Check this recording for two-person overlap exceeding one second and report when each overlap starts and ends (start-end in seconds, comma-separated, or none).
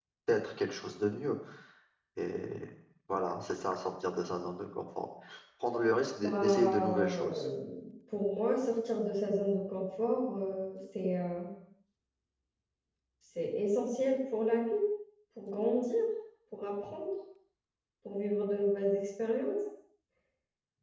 6.2-7.5